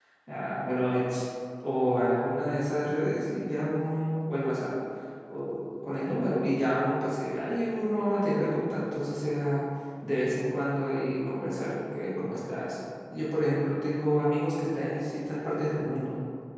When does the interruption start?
none

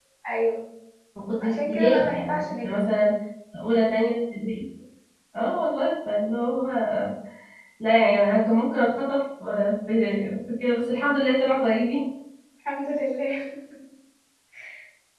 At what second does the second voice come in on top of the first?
1.4 s

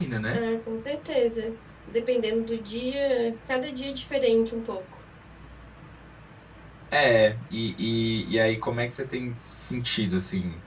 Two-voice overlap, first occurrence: none

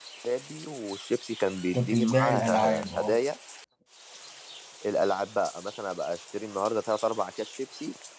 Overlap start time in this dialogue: 1.7 s

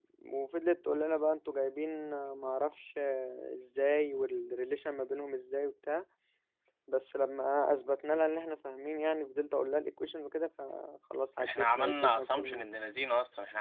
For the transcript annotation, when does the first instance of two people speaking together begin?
11.4 s

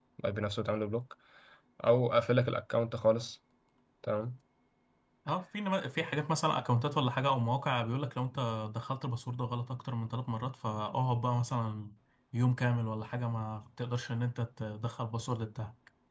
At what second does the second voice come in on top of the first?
none

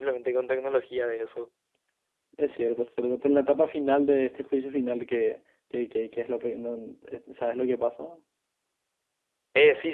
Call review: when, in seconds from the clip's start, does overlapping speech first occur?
none

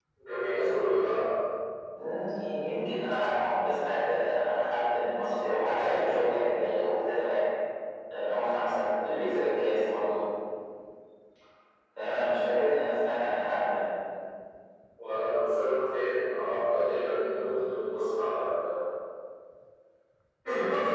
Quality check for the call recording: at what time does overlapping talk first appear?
none

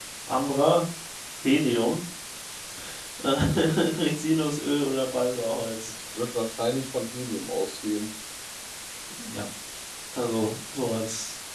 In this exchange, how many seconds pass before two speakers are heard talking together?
none

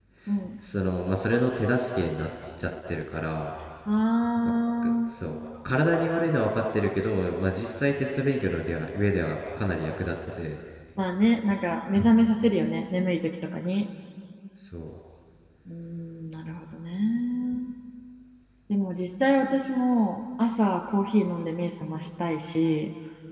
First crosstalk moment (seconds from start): none

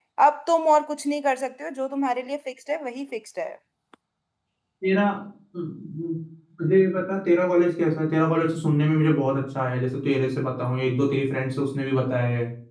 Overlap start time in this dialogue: none

